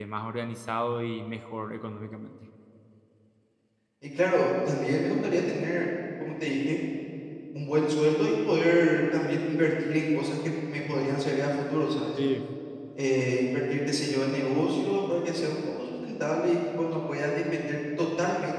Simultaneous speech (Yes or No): No